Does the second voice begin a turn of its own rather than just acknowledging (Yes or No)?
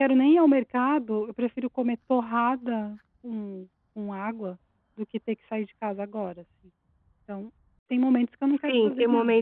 Yes